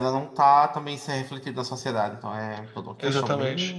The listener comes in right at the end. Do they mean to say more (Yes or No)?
Yes